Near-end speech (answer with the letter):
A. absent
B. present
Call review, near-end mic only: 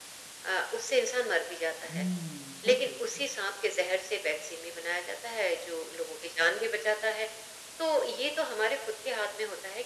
B